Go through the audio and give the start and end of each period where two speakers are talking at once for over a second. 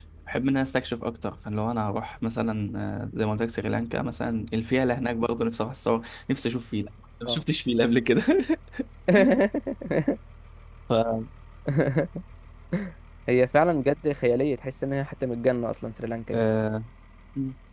none

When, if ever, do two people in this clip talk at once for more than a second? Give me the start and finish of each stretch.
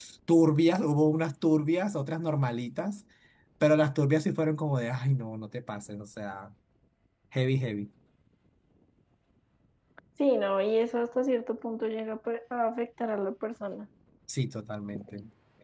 none

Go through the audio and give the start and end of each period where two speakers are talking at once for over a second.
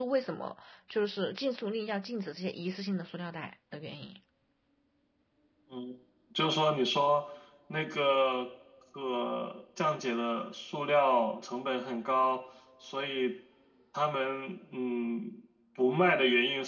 none

